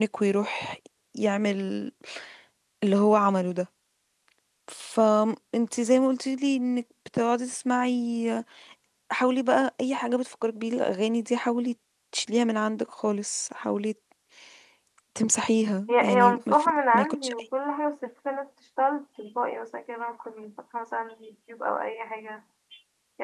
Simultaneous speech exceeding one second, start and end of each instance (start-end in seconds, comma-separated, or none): 15.9-17.4